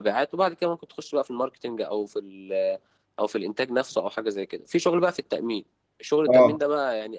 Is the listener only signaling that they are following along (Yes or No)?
Yes